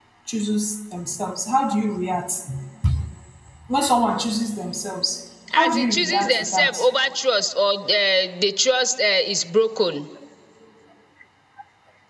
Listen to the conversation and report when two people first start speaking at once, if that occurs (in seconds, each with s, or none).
5.5 s